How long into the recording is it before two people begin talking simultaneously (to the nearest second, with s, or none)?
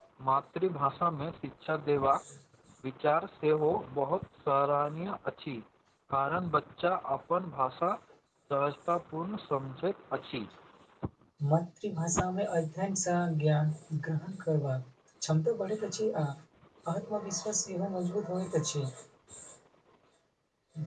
none